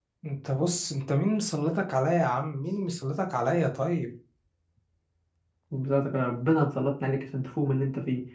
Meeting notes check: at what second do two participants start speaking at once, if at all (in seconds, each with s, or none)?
none